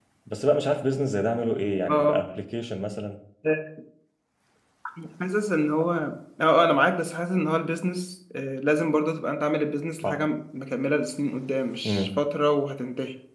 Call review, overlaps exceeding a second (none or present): none